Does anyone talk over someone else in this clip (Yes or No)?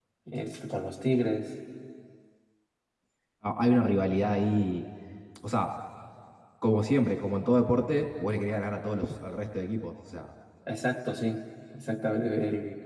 No